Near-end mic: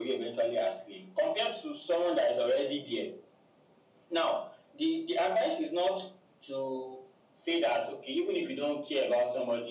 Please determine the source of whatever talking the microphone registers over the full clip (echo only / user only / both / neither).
echo only